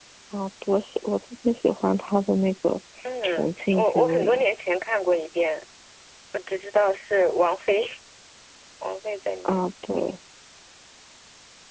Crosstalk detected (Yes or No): Yes